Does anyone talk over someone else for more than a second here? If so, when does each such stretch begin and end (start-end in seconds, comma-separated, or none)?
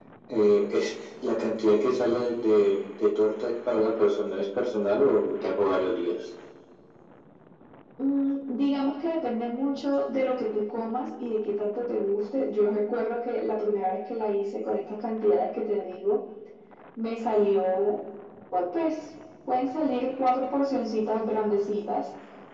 none